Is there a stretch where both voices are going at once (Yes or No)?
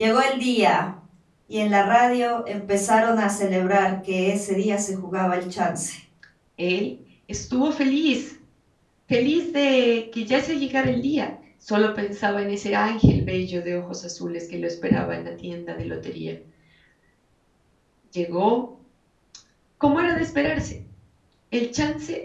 No